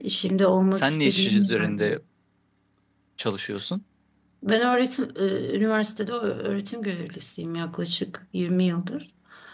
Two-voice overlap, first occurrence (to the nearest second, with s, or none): 1 s